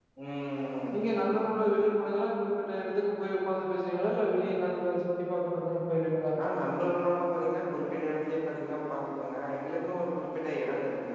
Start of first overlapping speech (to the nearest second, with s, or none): none